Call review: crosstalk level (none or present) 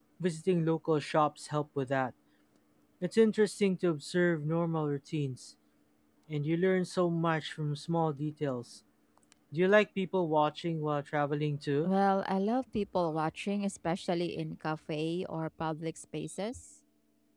none